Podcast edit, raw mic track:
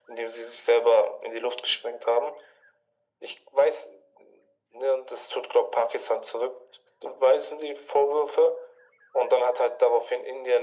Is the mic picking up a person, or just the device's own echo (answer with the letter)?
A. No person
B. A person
A